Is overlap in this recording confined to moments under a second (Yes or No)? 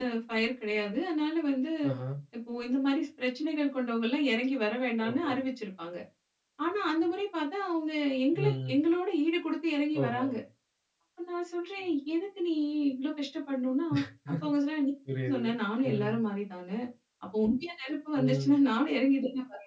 Yes